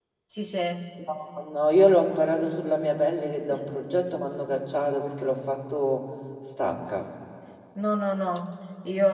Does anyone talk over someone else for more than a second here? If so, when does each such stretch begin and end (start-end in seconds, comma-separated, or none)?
none